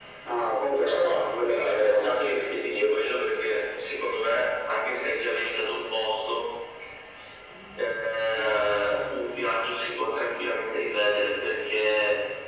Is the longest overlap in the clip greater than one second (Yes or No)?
Yes